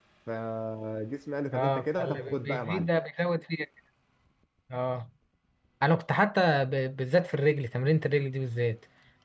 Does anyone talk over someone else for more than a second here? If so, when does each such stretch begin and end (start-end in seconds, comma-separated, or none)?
1.5-2.9